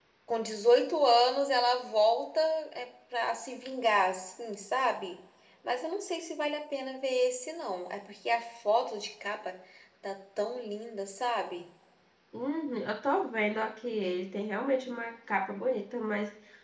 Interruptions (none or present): none